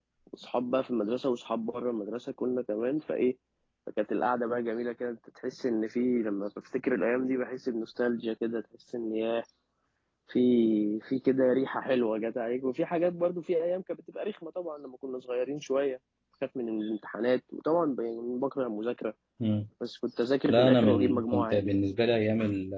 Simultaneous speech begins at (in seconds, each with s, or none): 20.5 s